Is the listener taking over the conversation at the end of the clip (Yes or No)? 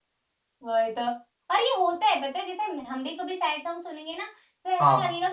No